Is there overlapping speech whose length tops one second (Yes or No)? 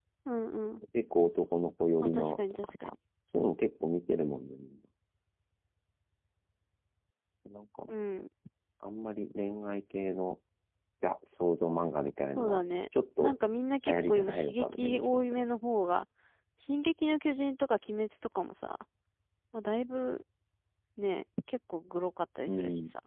Yes